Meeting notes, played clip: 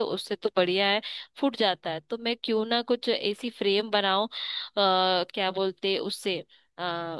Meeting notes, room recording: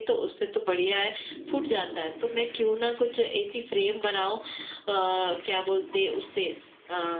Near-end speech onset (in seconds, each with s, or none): none